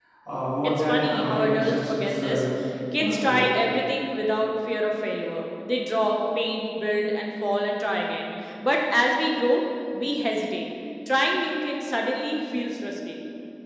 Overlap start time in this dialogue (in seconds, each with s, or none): 0.6 s